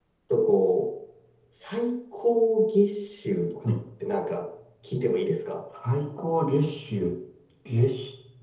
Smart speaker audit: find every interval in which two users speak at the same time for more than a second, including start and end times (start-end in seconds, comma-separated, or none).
none